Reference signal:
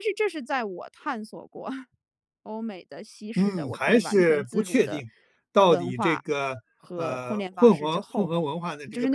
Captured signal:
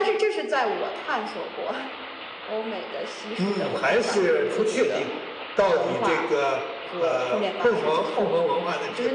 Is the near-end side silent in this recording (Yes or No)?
Yes